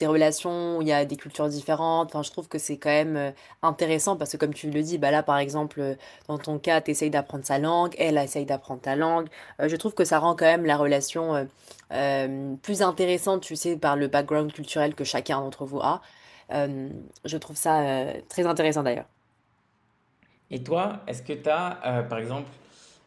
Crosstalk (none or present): none